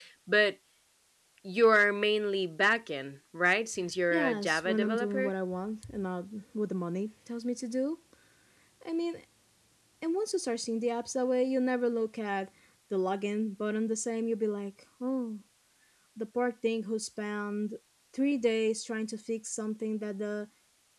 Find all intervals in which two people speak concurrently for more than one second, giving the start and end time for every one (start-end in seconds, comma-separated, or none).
4.1-5.3